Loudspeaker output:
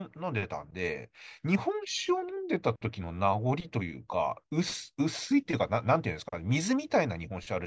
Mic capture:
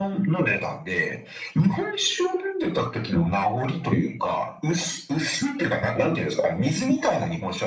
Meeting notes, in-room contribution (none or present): none